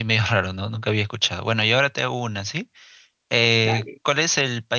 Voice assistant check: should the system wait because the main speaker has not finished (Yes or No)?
Yes